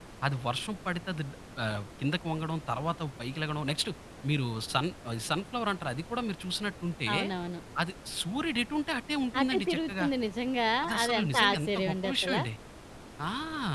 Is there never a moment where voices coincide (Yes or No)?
No